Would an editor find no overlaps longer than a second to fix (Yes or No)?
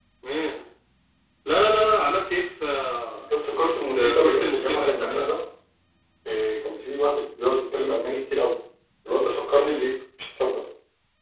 No